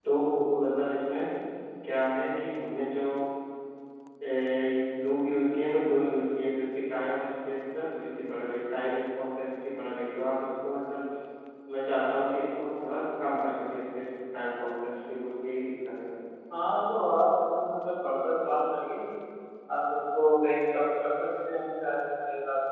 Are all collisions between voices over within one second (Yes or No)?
Yes